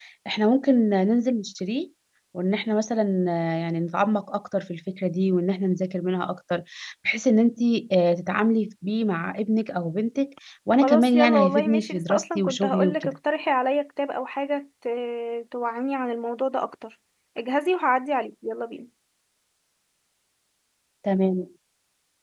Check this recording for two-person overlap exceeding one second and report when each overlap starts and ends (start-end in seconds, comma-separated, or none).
10.8-13.2